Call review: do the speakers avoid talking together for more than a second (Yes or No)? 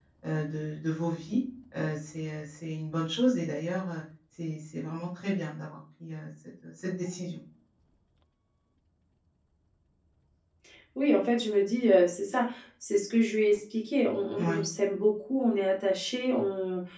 Yes